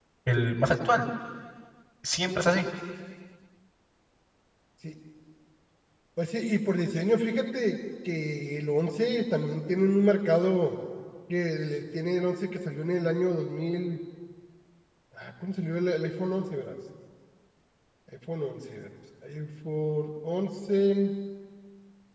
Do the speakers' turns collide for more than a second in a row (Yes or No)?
No